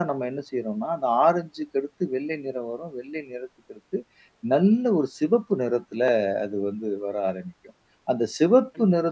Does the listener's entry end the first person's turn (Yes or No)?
No